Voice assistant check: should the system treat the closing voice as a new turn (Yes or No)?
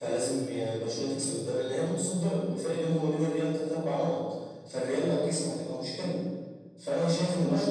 No